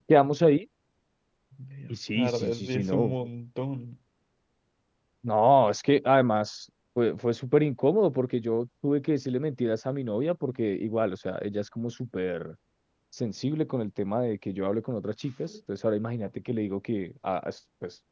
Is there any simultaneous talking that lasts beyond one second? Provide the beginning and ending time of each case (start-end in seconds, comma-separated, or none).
1.9-3.1